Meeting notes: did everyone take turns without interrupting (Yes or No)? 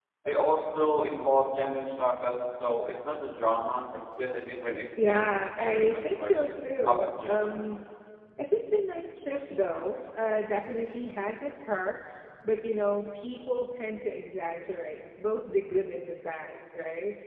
No